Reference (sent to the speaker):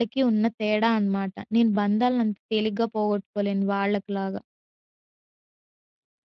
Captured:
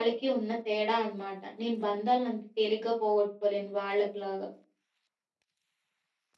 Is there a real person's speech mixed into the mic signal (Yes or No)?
No